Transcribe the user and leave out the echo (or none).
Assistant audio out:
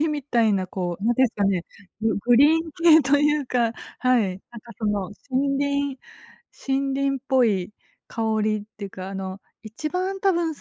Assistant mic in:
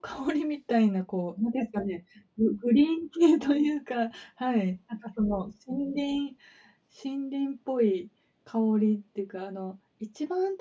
none